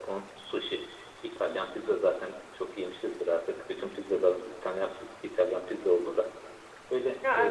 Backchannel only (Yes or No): Yes